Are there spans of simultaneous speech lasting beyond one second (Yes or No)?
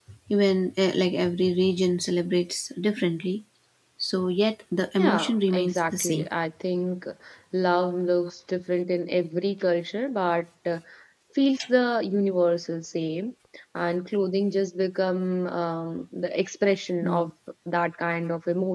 Yes